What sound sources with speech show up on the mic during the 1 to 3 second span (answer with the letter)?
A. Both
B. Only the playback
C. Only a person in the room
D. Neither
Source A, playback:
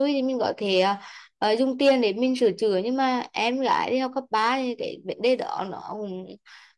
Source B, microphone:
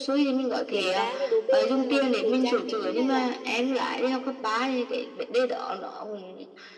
A